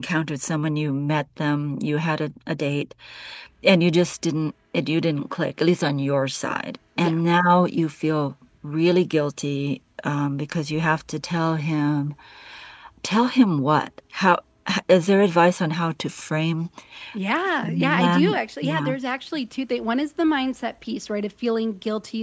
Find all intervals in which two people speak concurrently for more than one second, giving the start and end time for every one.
17.6-18.9

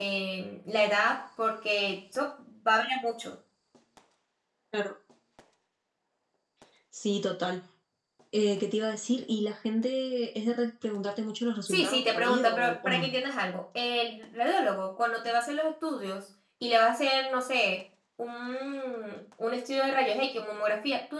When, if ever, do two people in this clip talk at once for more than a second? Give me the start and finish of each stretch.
11.7-13.1

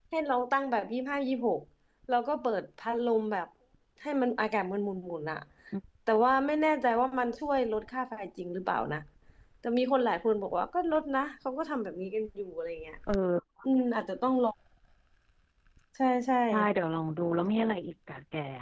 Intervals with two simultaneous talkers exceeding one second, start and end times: none

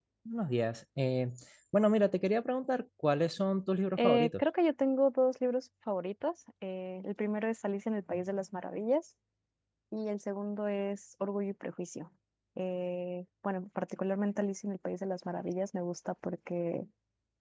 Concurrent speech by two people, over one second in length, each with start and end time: none

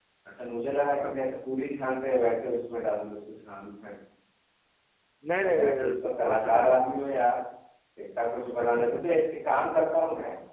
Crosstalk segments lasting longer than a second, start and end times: 5.4-6.8

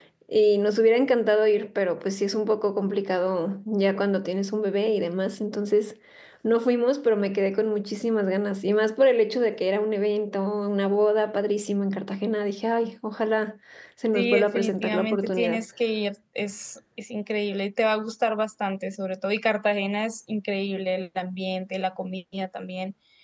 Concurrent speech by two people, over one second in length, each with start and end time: 14.1-15.6

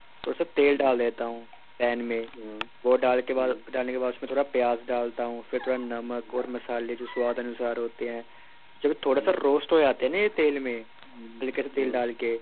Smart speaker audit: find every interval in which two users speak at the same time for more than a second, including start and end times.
none

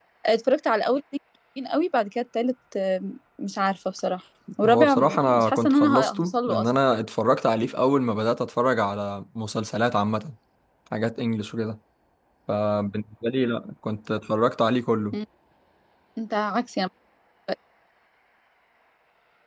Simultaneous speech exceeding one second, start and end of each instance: 4.6-6.7

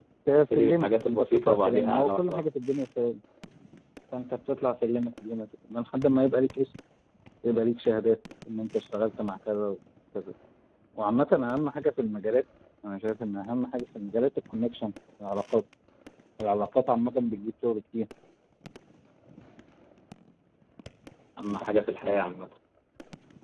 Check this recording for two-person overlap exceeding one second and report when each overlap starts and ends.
0.5-2.4

